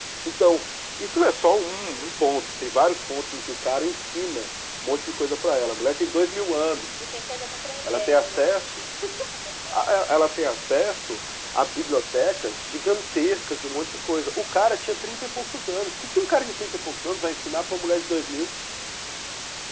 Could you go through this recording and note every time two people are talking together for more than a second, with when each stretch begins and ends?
none

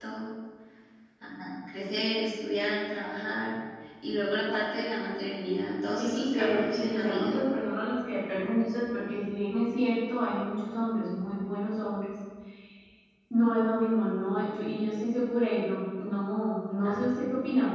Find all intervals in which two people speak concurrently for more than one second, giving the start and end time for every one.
6.0-7.4

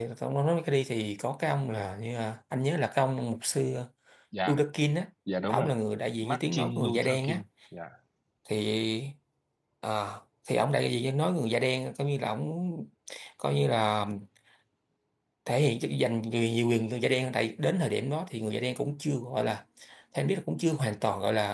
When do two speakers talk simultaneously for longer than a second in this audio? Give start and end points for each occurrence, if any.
6.2-7.4

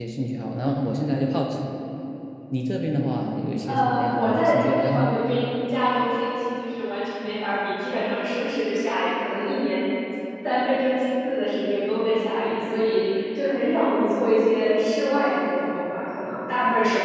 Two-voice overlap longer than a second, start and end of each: 3.6-5.1

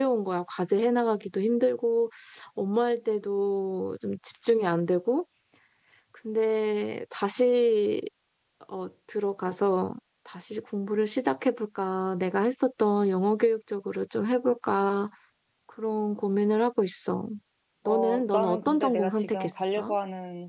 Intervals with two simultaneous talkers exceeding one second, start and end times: 17.9-19.9

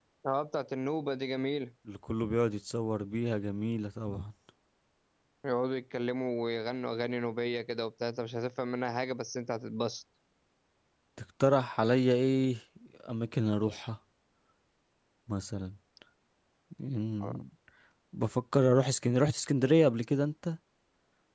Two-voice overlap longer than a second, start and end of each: none

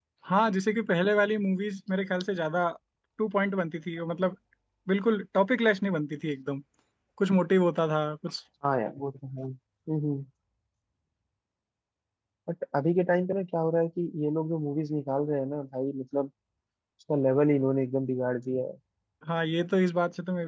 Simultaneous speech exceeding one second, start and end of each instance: none

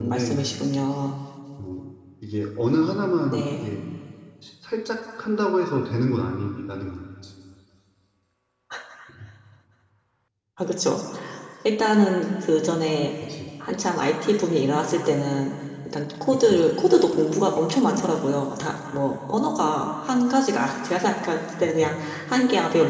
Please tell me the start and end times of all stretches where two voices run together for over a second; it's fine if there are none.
none

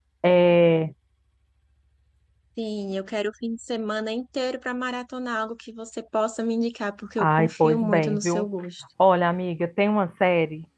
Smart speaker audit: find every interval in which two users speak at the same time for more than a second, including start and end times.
7.2-8.4

